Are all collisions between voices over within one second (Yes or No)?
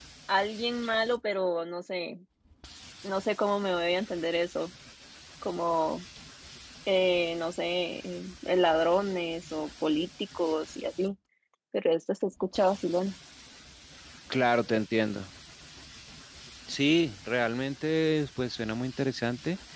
Yes